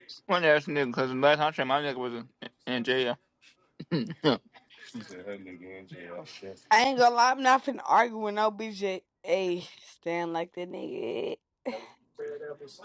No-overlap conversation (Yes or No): Yes